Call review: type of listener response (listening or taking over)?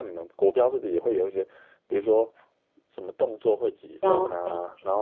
listening